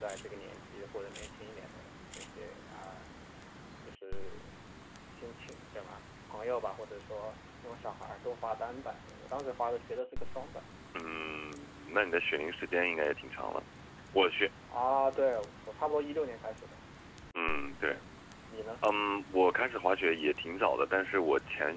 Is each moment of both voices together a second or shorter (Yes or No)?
Yes